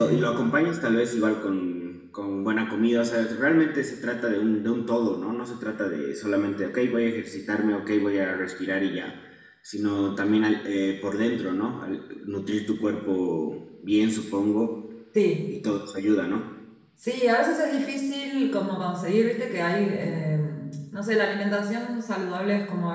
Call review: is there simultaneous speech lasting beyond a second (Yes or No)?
No